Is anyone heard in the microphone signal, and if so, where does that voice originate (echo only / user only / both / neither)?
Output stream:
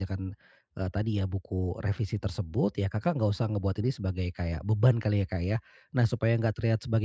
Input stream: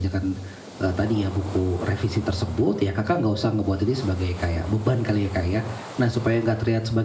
echo only